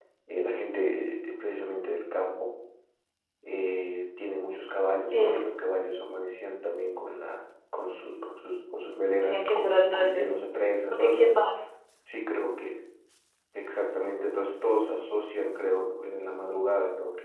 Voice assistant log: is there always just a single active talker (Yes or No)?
No